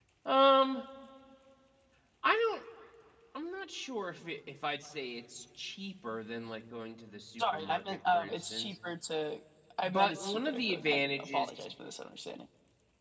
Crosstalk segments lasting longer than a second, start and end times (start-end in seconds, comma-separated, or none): 7.4-8.8, 9.8-11.5